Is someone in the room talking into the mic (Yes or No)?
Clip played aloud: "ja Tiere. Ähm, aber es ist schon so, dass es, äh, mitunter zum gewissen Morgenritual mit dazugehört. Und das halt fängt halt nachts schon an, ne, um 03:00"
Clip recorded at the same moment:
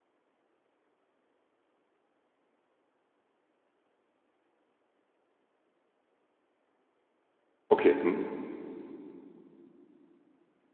Yes